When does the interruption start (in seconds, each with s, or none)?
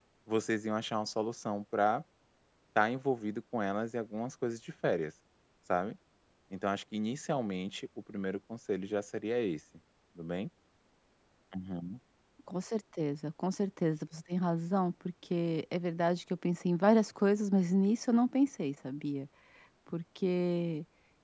none